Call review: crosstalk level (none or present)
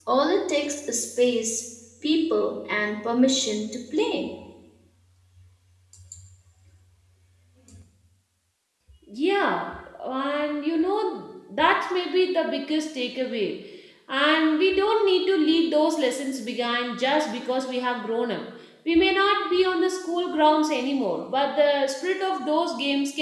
none